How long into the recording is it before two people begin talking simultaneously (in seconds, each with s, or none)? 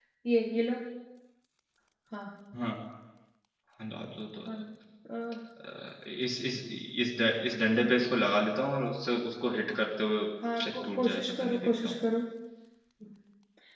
10.6 s